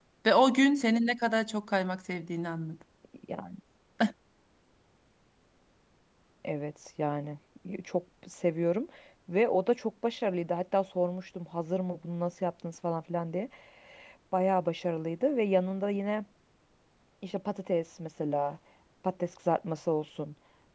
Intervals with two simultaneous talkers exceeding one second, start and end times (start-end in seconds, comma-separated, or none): none